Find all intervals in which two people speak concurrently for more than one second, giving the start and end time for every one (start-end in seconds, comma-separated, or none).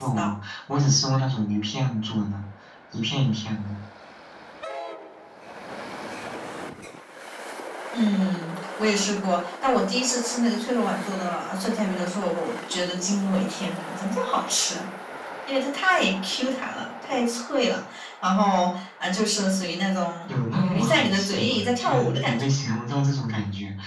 20.3-22.5